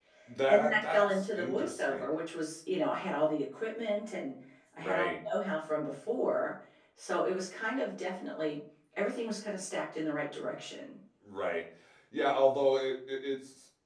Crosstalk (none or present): present